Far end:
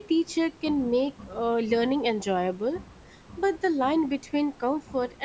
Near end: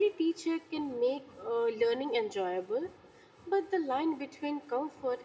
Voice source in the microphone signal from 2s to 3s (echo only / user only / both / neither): echo only